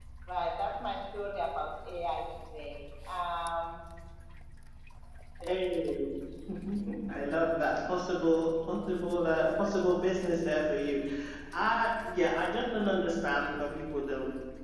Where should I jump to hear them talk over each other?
none

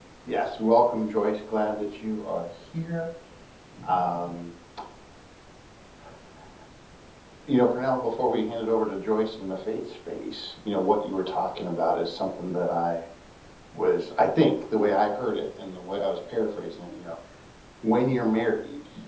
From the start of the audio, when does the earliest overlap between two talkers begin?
none

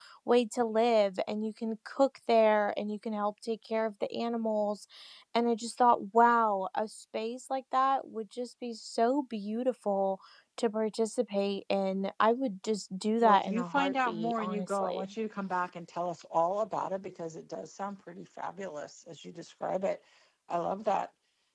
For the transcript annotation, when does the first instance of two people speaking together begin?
13.2 s

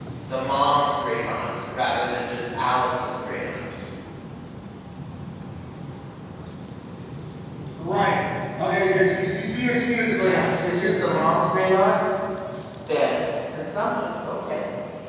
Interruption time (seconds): 10.1 s

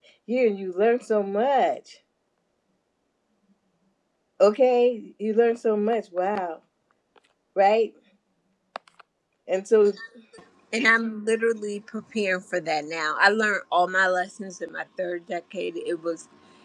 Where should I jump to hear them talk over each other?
none

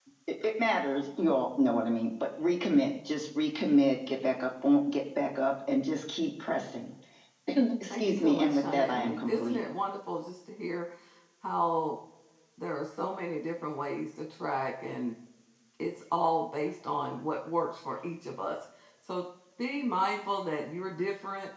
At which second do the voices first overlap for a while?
7.9 s

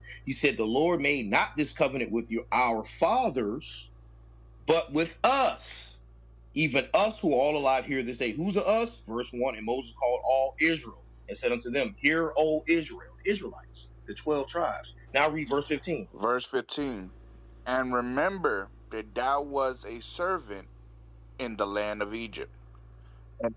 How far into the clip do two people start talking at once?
none

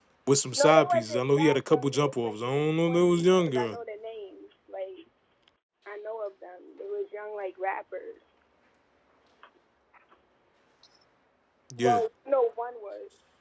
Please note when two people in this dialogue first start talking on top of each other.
0.5 s

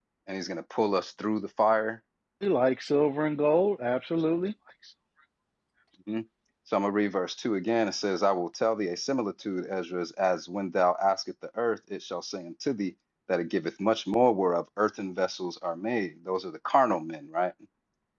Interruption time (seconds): none

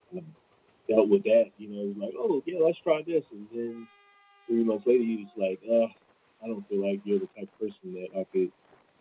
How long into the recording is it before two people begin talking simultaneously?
none

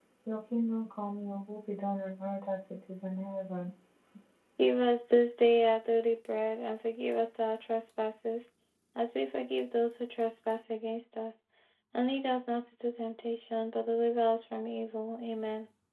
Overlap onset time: none

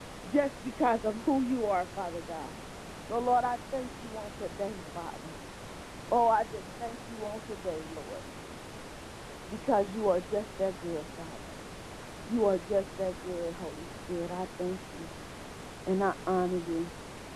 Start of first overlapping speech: none

